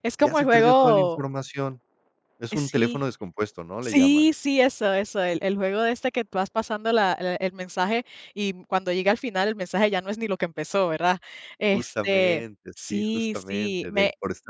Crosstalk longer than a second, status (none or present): present